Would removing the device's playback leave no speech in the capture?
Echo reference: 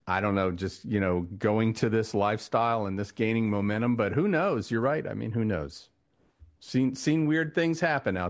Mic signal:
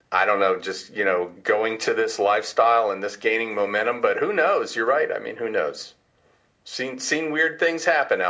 Yes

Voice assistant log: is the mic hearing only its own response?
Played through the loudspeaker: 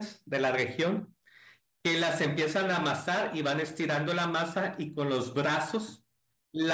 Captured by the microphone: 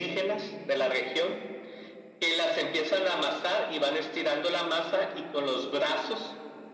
Yes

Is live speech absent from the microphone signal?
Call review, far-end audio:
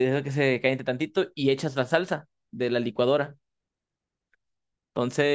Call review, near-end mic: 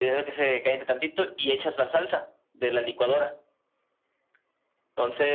Yes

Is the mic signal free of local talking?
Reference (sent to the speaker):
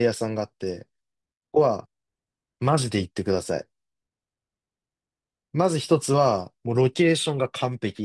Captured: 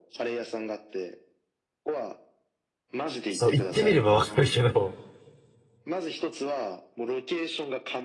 No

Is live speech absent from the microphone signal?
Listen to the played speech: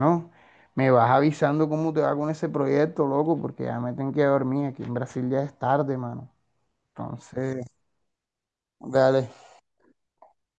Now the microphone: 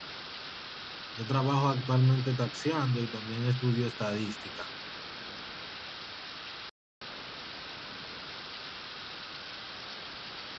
No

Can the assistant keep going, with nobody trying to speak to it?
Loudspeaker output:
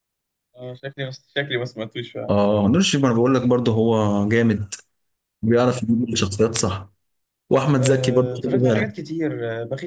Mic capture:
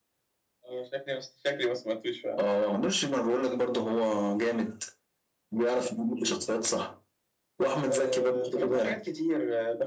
Yes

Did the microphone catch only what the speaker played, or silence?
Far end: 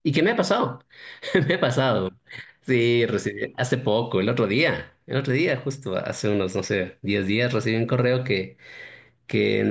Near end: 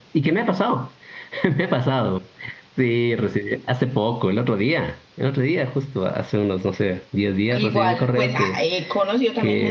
No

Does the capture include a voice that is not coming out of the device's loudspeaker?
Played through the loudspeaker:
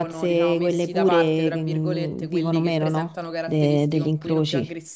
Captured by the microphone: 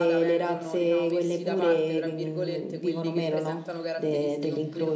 No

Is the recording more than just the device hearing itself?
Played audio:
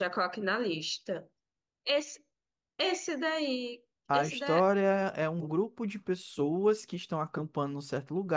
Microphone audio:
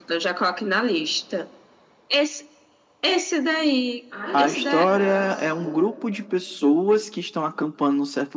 Yes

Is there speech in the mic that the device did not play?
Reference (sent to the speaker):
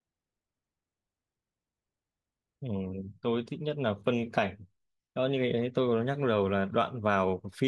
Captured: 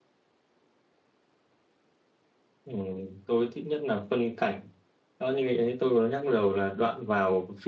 No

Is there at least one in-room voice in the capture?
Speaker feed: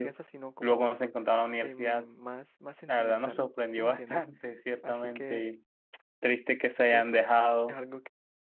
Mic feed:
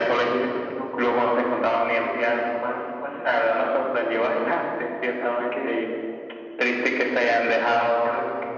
No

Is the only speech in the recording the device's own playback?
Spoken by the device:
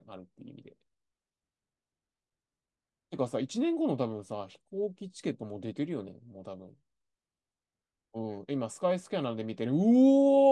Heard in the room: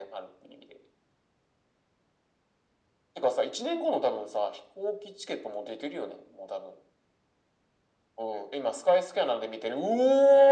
Yes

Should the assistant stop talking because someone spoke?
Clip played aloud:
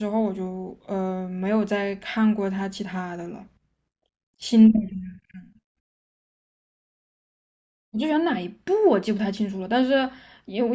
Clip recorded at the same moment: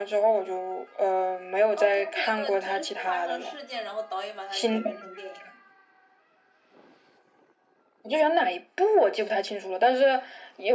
Yes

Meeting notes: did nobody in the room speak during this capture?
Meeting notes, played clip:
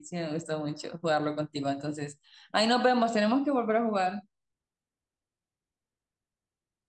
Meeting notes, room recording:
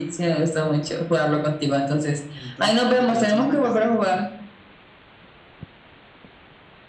No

